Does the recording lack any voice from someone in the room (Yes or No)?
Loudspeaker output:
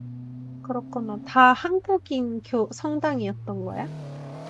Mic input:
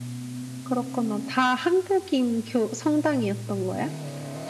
Yes